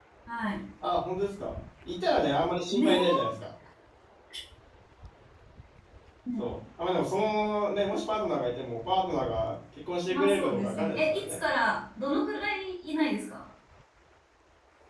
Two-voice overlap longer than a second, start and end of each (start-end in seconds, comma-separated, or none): 10.1-11.4